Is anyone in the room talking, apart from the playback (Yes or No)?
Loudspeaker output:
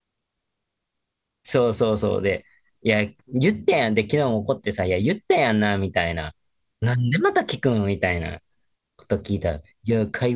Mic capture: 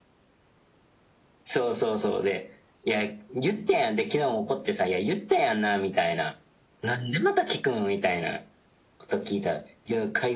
No